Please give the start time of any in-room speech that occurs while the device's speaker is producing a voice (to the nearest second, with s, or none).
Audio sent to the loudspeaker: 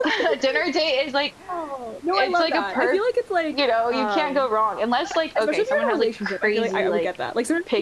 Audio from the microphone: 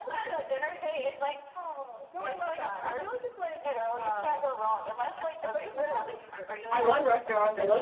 7 s